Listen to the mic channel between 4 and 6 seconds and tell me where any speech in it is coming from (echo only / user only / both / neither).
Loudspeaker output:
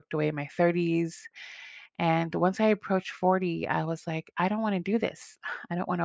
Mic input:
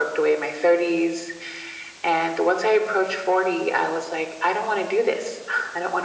echo only